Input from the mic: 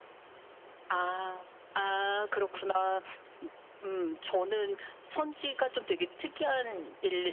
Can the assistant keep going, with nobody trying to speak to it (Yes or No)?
Yes